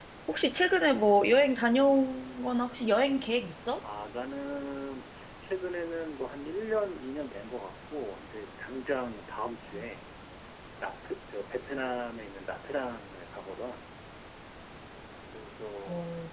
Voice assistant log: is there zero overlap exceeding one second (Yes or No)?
Yes